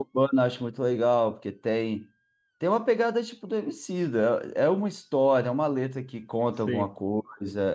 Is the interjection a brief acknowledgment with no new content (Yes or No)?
Yes